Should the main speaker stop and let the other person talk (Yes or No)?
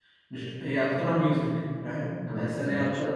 No